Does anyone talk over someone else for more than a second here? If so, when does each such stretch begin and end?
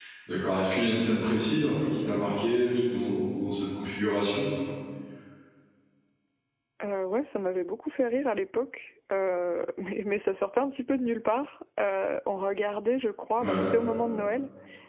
none

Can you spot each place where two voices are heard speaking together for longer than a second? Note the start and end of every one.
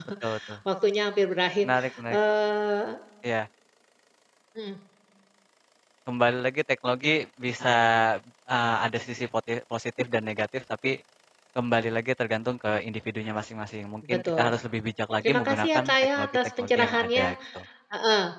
15.2-17.2

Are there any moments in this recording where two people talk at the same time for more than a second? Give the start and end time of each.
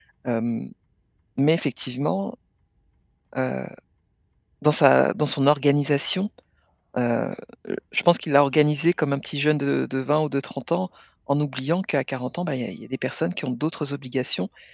none

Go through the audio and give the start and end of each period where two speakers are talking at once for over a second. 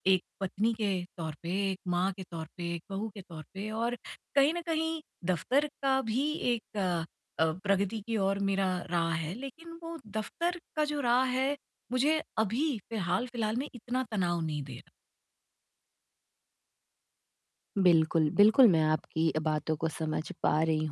none

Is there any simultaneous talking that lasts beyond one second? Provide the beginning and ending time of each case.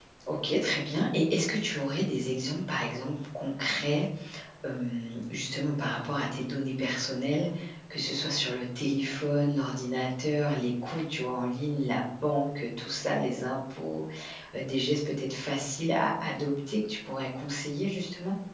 none

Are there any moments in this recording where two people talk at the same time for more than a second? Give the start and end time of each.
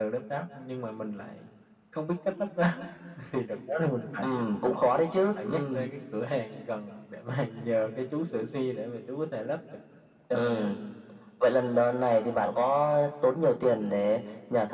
none

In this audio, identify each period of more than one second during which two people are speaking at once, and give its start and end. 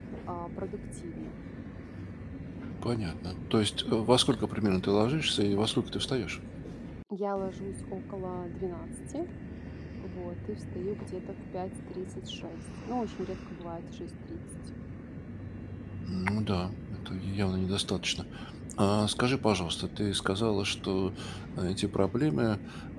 none

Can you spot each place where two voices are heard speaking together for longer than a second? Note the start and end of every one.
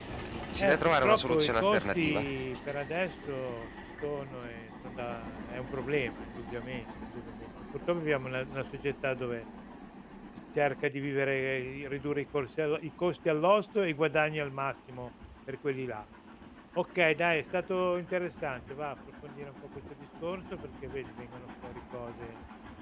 0.6-2.2

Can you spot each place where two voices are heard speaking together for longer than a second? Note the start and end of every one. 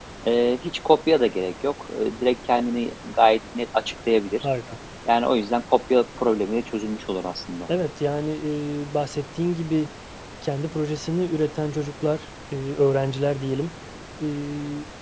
none

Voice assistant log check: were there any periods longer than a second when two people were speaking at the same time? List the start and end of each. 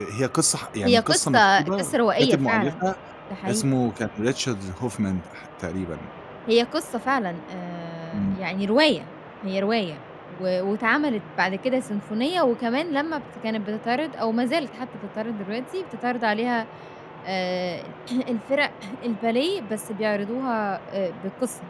0.8-2.8

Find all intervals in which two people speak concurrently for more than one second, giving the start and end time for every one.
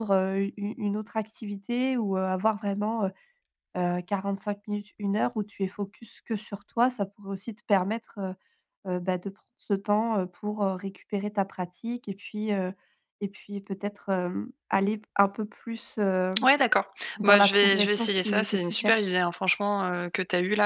17.2-19.1

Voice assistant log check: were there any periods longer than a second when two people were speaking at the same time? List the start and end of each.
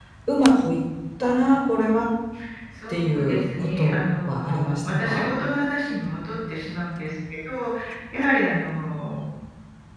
2.9-5.3

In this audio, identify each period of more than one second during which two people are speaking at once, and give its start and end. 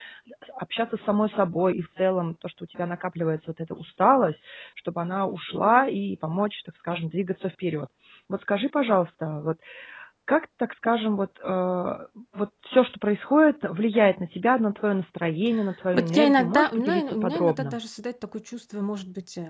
15.9-17.8

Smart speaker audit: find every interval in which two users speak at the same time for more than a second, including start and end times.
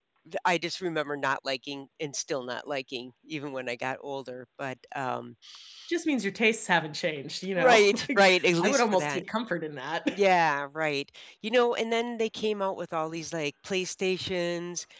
7.6-9.2

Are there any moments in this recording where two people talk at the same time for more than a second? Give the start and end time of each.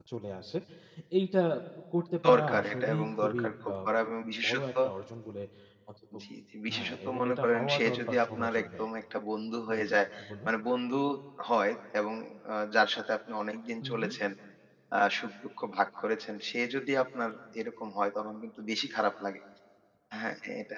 2.3-3.9, 6.7-8.8

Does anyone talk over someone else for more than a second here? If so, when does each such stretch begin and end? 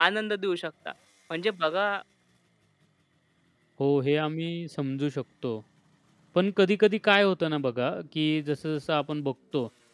none

